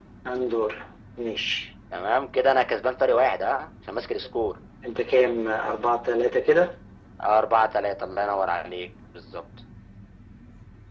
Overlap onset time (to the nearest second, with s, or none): none